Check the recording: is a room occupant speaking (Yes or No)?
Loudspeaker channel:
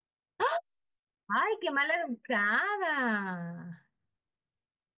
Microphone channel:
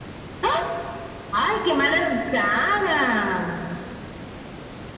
No